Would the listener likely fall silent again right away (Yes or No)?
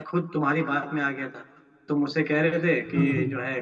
Yes